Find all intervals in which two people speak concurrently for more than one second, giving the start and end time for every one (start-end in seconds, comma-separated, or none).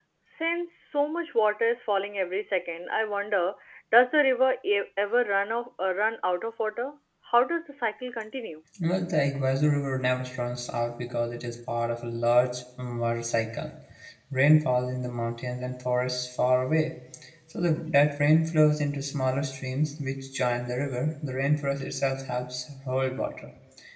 none